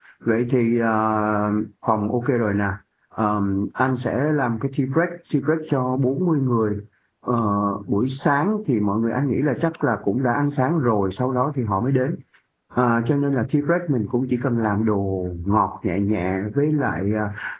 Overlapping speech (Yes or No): No